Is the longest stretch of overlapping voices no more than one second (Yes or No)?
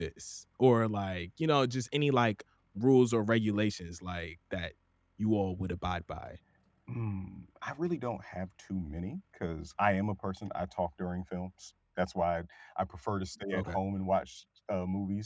Yes